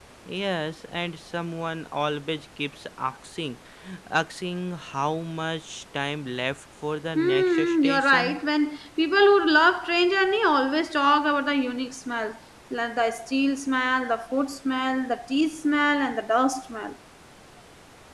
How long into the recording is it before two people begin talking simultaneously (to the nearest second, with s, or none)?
7 s